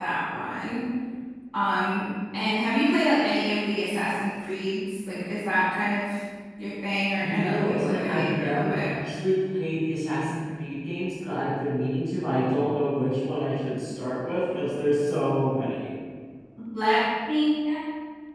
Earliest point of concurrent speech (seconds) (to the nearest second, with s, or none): 7 s